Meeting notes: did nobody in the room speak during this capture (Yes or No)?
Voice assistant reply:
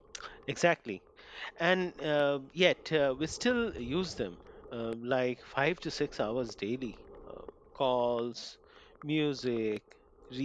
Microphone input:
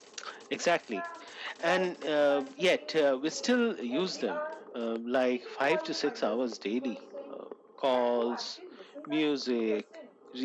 No